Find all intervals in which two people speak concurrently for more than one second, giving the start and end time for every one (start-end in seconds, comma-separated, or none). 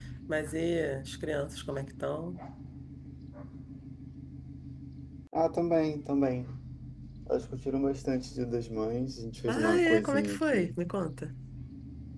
9.5-10.8